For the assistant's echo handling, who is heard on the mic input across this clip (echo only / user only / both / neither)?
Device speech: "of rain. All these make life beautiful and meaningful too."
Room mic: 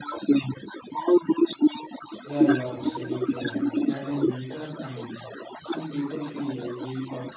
both